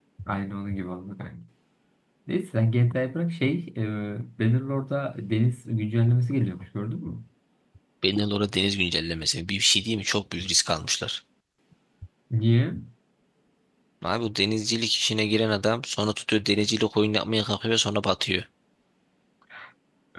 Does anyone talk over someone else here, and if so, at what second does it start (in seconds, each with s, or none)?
none